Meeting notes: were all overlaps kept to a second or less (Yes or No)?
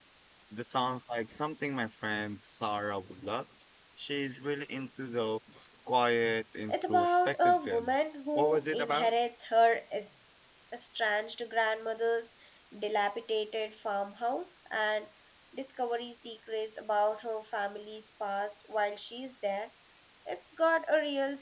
No